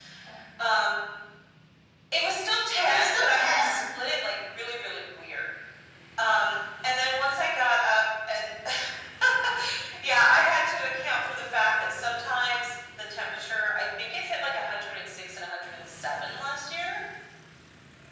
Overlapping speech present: Yes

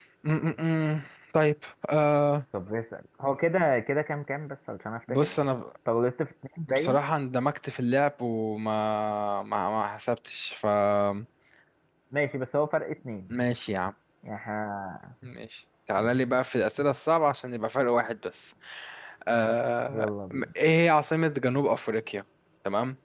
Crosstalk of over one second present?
No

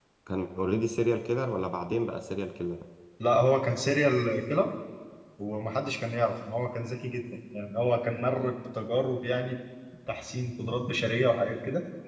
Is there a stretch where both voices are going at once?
No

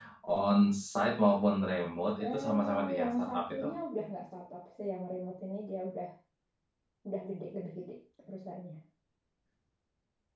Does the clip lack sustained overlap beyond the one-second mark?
No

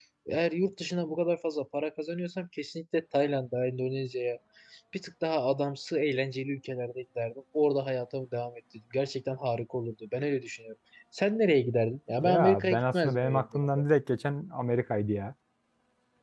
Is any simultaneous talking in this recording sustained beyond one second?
Yes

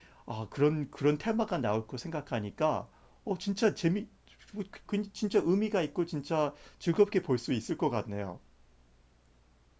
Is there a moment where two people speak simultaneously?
No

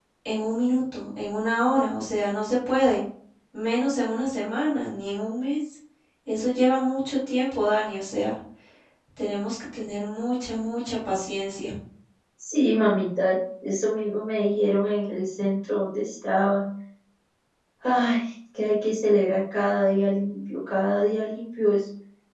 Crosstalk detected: No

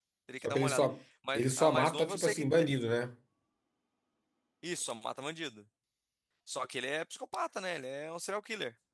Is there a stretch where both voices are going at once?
Yes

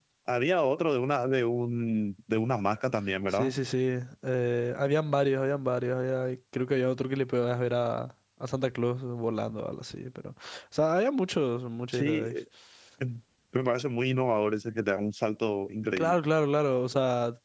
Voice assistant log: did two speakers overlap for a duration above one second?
No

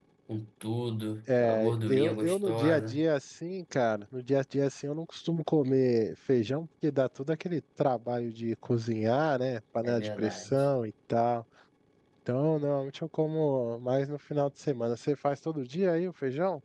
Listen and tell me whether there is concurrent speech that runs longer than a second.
Yes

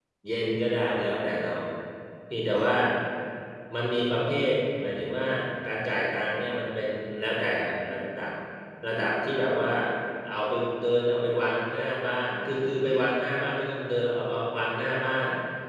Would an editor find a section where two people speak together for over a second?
No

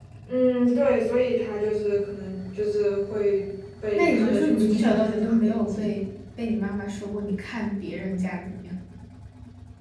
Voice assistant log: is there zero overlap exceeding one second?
No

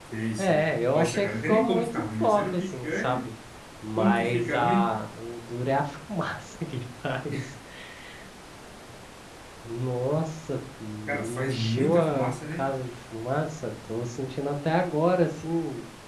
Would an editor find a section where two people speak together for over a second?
Yes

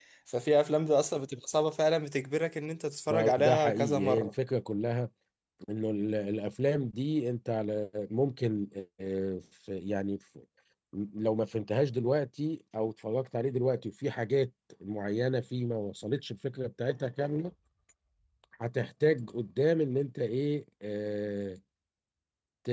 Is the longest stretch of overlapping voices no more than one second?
No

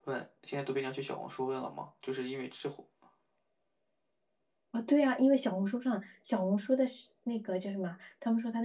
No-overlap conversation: Yes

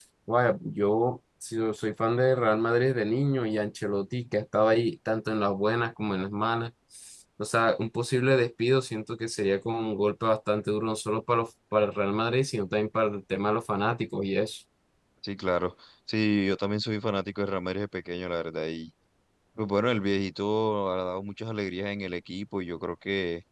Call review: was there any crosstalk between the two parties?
No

